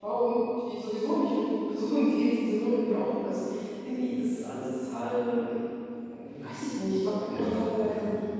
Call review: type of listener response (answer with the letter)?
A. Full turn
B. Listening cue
A